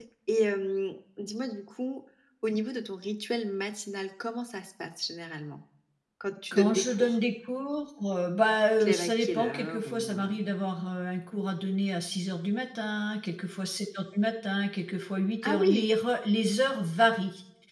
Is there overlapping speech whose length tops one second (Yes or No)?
Yes